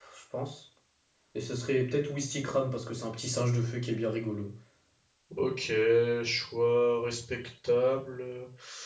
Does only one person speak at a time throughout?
Yes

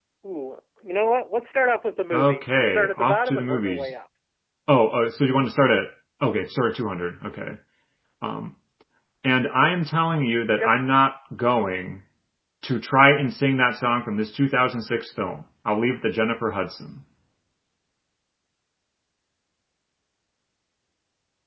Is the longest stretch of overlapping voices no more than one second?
No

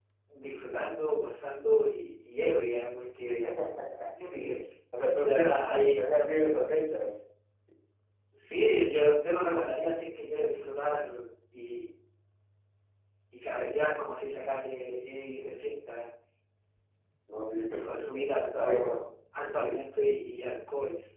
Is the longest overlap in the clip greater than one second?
Yes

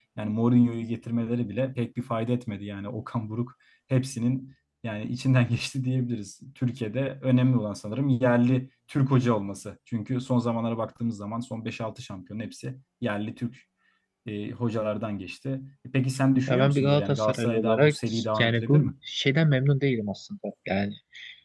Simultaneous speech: Yes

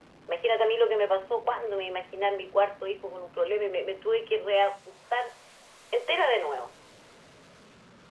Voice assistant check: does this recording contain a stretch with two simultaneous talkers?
No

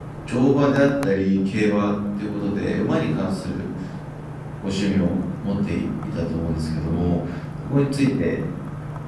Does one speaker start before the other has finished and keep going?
No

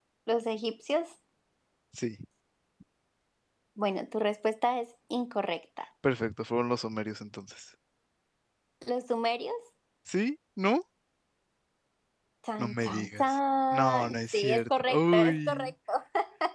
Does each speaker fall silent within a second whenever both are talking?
No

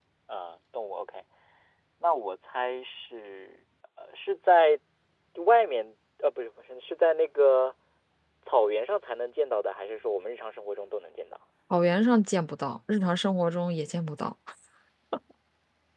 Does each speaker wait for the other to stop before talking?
Yes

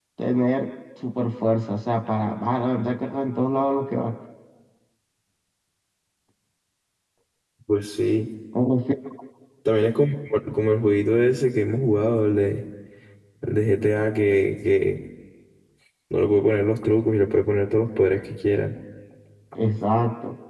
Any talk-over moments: No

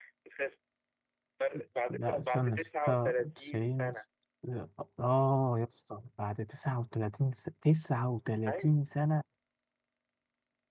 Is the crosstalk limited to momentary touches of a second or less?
No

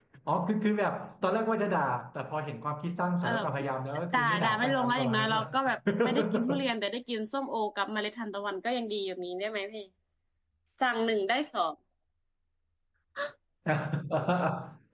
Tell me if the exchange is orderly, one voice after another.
No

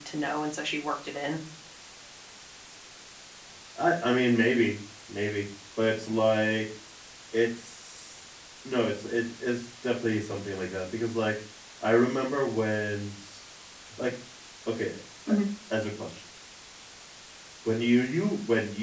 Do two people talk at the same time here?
No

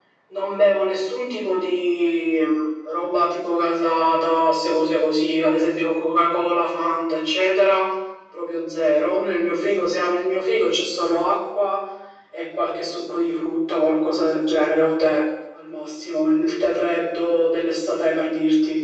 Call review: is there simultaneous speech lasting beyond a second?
No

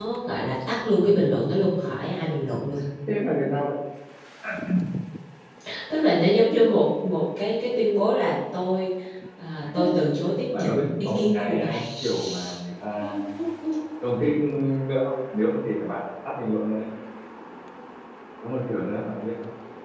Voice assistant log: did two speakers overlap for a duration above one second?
Yes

